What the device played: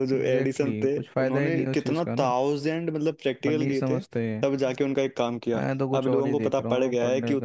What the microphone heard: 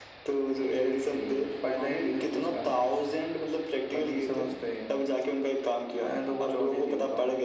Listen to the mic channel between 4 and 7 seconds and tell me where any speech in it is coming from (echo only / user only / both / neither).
echo only